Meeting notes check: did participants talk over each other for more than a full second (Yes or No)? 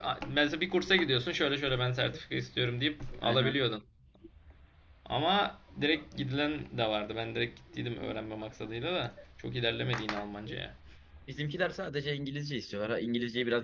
No